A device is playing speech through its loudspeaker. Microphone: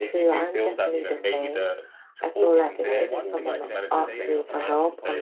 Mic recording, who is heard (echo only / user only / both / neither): both